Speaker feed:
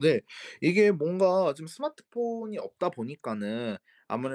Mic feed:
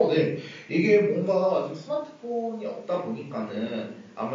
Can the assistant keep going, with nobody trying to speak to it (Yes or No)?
No